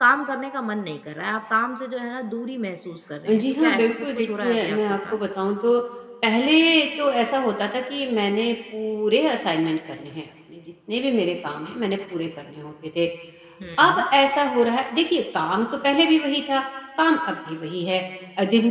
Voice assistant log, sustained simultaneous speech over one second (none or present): present